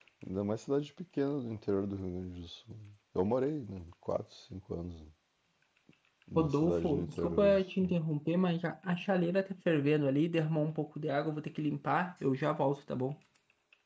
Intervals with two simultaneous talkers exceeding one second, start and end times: 6.4-7.9

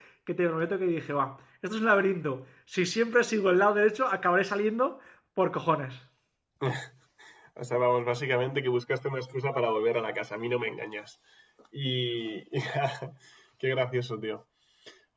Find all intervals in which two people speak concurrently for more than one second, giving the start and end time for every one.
none

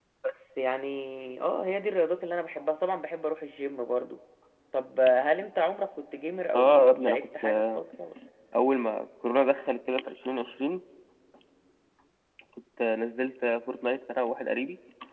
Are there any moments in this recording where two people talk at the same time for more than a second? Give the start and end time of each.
6.5-7.8

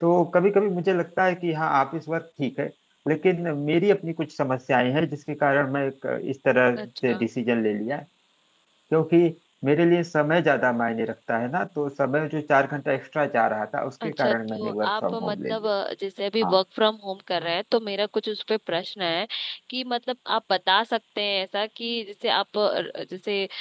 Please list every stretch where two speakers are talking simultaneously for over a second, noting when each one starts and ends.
14.0-15.7

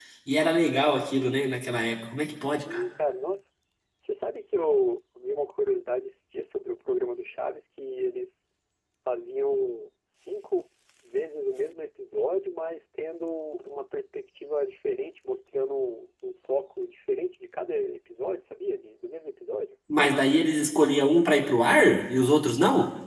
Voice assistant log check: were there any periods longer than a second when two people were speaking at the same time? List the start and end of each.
none

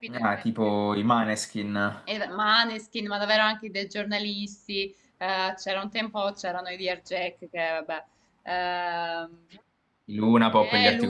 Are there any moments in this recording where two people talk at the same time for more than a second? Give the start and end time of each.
none

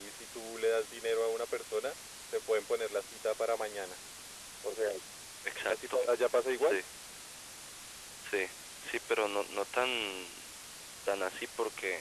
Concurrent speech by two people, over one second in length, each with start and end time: none

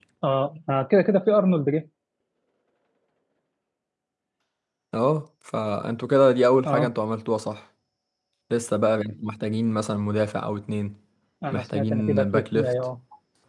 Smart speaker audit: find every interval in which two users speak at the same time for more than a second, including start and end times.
11.5-12.7

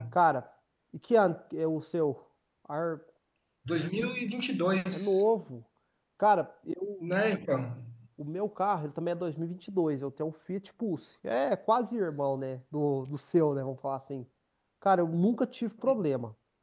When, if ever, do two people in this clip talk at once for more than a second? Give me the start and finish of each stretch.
none

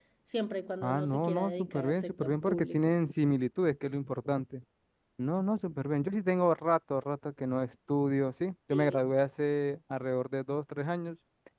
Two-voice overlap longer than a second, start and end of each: 0.8-3.0

